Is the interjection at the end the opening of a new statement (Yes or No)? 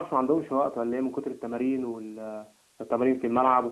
Yes